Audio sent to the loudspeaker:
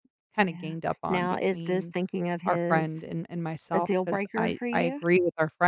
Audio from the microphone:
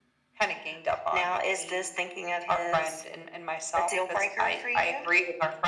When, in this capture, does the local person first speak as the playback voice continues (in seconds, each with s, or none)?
none